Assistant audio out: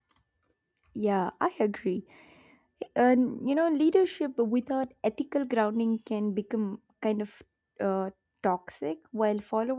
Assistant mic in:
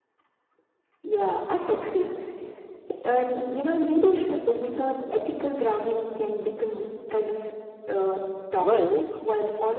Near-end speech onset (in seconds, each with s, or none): 8.6 s